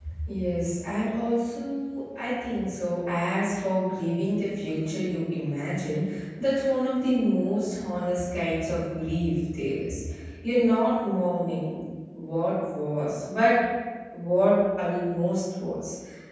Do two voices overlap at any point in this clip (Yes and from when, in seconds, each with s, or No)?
No